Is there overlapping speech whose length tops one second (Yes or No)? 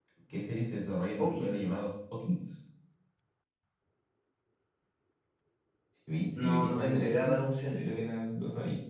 Yes